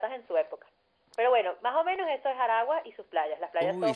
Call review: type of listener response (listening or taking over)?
taking over